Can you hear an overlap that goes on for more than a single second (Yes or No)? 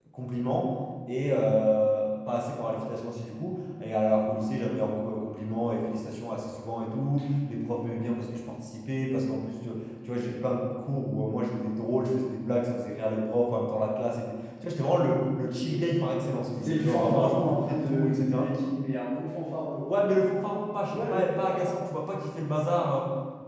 Yes